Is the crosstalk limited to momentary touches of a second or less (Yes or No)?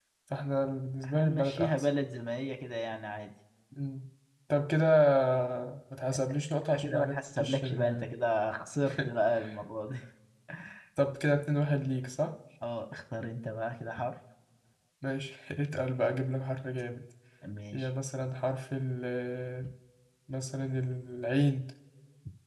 No